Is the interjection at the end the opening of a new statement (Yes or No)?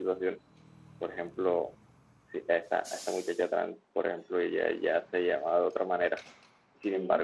No